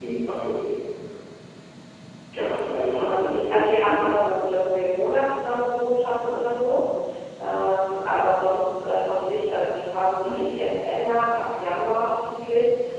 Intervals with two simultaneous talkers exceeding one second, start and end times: 2.9-4.3

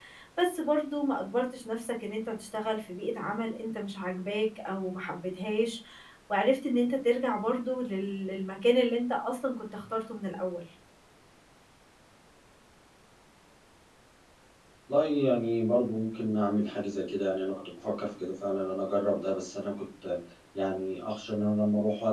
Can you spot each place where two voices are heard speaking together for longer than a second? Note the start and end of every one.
none

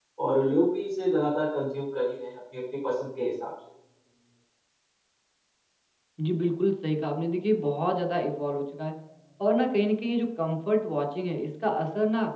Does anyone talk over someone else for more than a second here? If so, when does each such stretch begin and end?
none

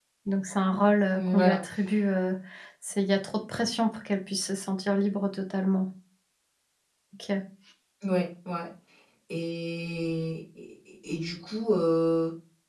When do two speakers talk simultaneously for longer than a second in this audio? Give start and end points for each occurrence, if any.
none

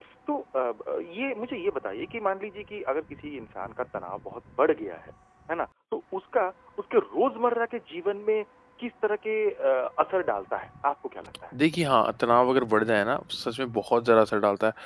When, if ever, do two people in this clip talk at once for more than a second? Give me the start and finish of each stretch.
none

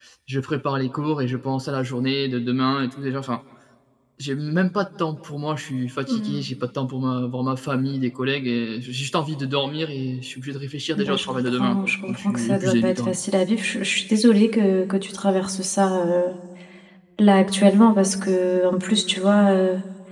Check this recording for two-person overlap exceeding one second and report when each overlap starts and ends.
11.0-13.2

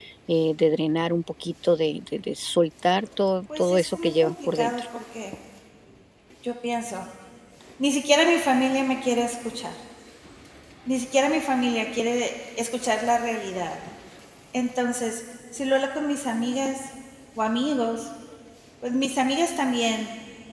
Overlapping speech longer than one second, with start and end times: 3.6-4.8

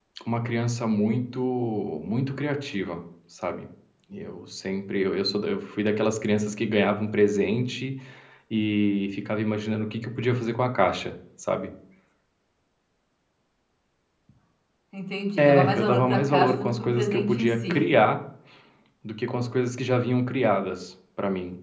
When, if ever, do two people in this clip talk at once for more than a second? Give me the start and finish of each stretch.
15.4-17.8

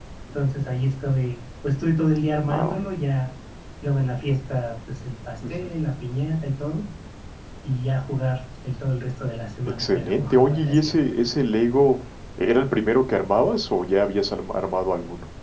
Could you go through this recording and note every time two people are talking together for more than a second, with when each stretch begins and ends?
9.7-11.0

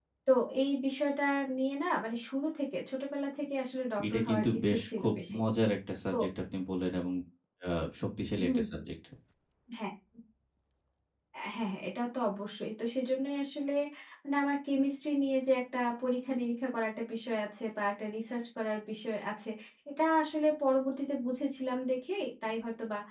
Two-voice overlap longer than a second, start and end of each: 4.1-5.4

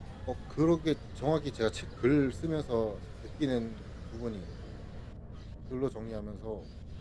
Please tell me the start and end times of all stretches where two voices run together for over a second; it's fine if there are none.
none

